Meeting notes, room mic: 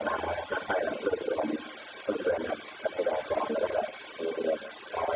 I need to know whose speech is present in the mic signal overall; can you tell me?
echo only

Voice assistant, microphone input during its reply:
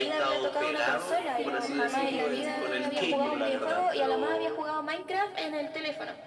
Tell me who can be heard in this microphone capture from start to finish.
both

